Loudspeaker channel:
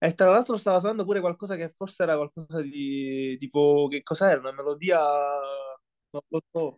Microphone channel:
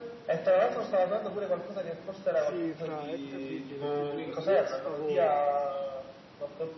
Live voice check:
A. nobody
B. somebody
B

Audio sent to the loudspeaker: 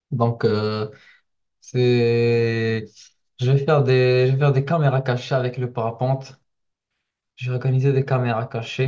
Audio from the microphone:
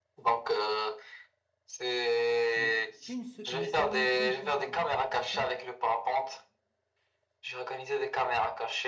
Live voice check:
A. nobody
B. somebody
B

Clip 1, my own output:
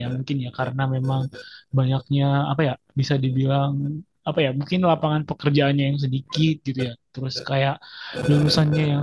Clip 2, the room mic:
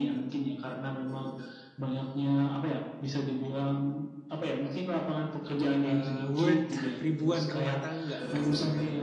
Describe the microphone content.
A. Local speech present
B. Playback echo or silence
A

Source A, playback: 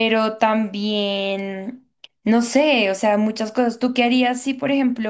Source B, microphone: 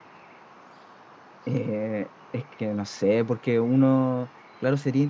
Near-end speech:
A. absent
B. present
B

